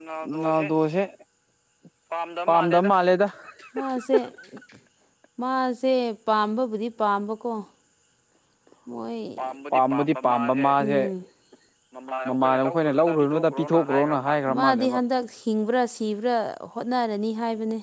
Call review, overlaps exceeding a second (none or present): present